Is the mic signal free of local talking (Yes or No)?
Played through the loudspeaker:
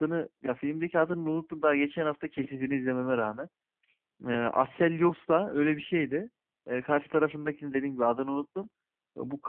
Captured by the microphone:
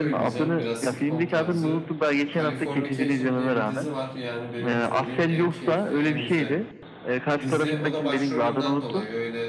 No